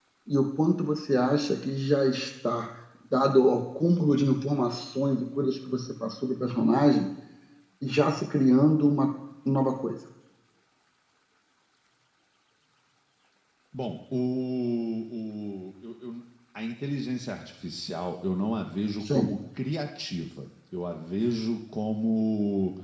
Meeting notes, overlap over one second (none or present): none